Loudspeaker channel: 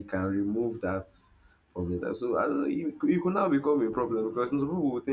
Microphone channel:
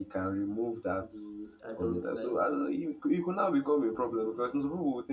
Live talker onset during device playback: 1.0 s

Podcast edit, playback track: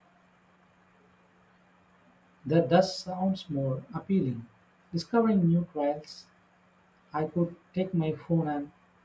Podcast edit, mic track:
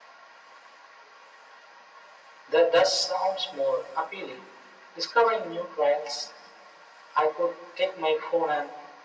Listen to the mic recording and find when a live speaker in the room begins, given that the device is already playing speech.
none

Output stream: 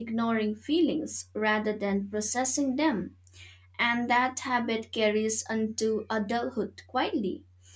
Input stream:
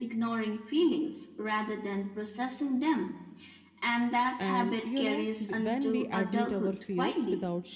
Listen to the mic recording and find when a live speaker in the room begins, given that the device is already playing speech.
4.4 s

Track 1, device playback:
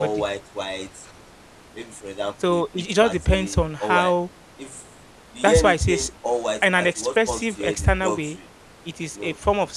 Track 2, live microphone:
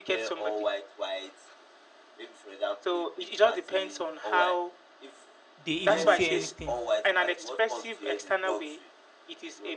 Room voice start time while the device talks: 5.6 s

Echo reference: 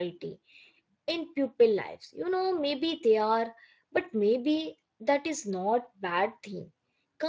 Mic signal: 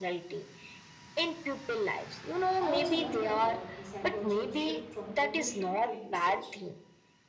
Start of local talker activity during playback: 2.6 s

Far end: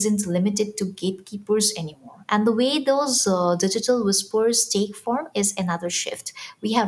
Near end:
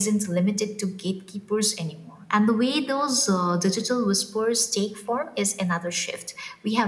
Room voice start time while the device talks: none

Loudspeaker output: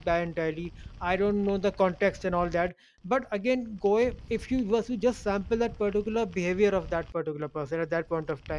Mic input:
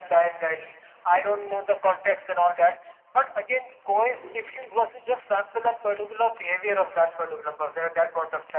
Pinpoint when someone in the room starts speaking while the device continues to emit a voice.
3.9 s

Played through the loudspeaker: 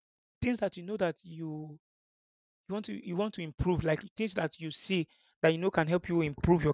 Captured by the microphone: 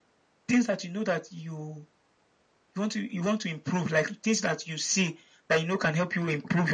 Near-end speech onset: none

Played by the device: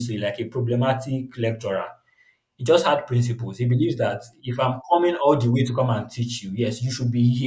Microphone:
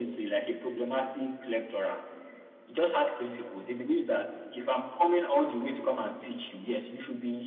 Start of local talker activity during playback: none

